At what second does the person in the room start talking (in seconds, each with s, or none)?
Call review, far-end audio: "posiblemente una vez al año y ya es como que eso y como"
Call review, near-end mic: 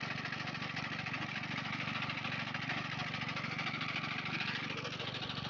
none